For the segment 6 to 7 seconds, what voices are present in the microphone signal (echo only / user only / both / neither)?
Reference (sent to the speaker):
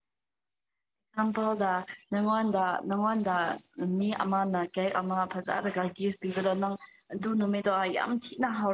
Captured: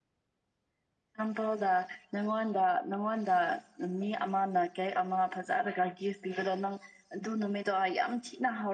echo only